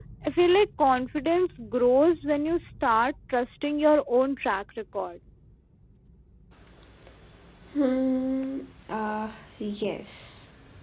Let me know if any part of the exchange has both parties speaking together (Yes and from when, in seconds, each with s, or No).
No